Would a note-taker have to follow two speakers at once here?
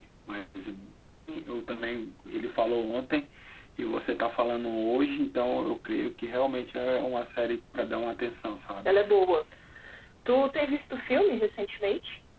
No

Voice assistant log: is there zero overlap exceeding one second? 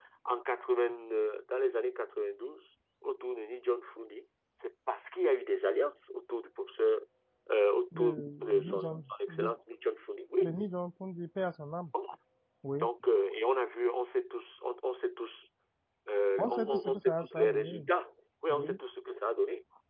No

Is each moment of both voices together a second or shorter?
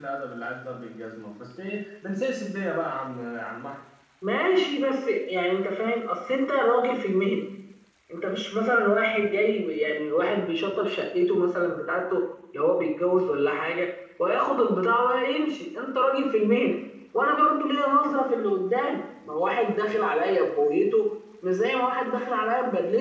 Yes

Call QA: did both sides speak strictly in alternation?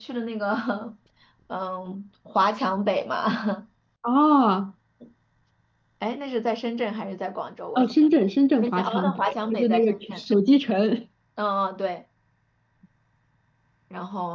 No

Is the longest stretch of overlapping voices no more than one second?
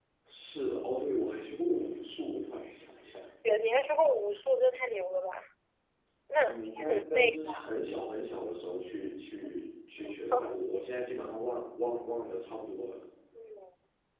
No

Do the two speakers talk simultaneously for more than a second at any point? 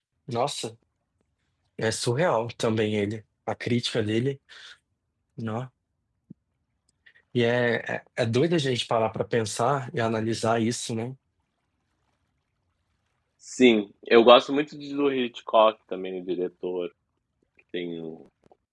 No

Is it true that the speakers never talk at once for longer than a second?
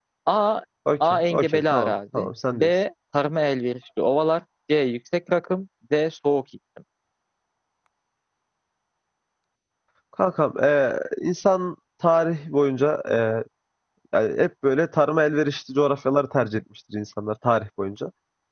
No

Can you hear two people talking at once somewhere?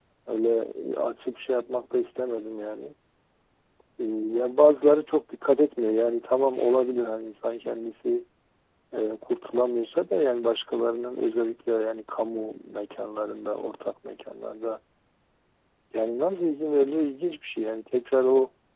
No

